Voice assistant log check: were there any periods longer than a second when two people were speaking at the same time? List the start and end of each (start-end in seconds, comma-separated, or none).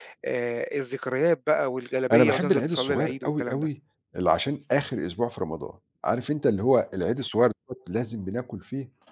2.1-3.7